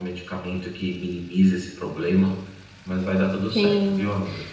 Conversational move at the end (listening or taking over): taking over